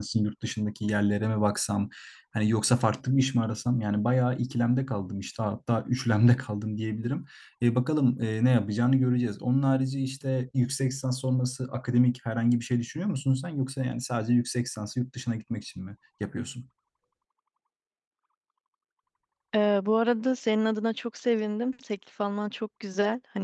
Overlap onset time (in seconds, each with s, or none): none